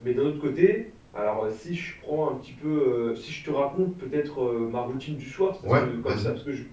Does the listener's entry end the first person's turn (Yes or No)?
No